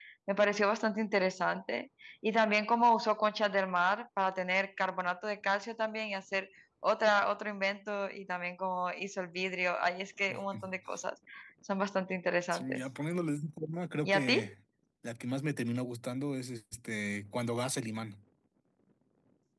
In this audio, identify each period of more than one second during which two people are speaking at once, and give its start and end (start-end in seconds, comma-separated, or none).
none